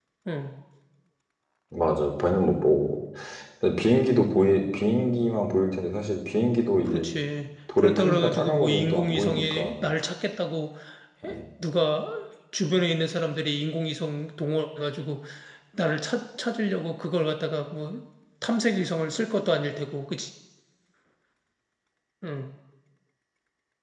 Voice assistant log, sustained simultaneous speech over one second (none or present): present